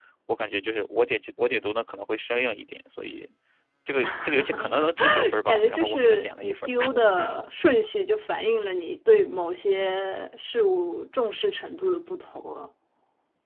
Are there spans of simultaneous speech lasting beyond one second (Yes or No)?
Yes